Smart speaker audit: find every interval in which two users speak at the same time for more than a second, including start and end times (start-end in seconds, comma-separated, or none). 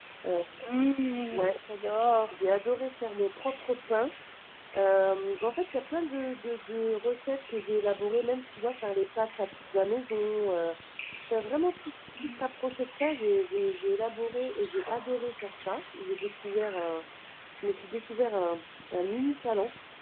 none